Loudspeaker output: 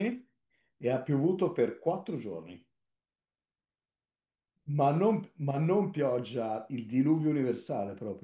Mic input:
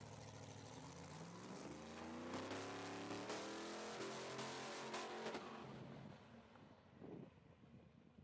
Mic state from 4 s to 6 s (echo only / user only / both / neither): neither